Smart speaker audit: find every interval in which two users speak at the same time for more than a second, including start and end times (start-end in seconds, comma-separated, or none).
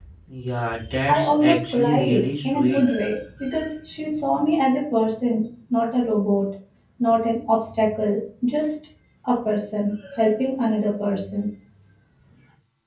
1.1-2.8